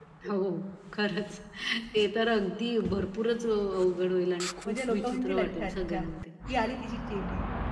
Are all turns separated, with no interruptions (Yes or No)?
No